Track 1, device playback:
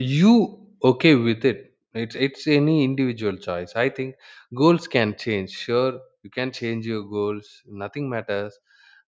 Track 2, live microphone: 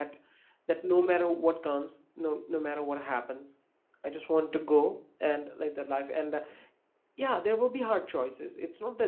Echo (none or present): none